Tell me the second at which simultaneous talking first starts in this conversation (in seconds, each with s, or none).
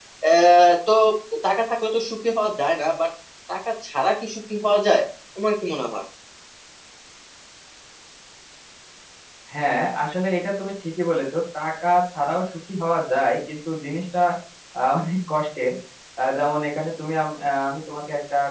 none